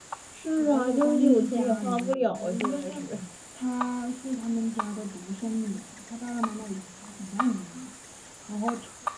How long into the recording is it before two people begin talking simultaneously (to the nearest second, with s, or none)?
1 s